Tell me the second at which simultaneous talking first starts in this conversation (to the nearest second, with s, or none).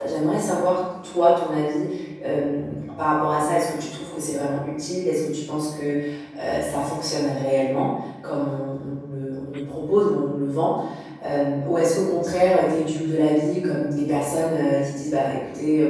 none